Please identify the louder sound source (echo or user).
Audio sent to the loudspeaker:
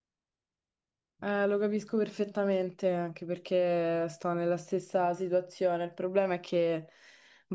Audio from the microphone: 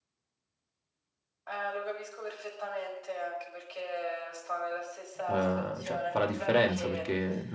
user